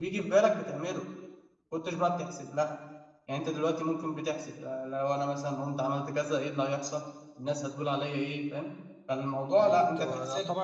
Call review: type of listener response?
taking over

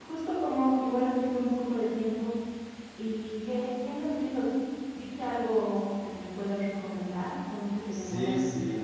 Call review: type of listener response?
taking over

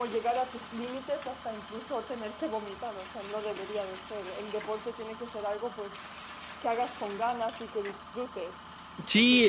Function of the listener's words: taking over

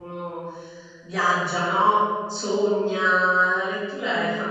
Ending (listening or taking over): listening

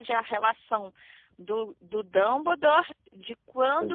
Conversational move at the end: listening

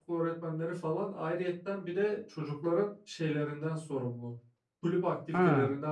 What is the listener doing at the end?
listening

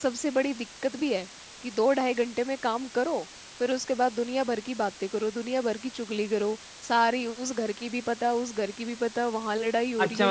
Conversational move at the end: taking over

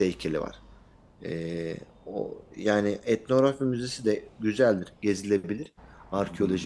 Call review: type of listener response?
listening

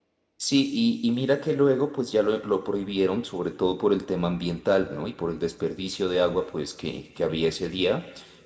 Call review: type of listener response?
listening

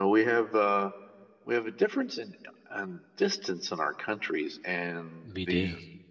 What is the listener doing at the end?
listening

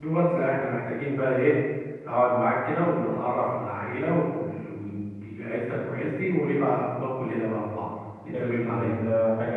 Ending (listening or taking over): taking over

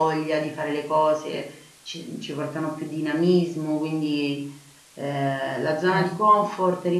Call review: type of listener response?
listening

